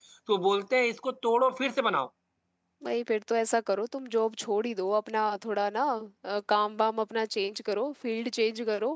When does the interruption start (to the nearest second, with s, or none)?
none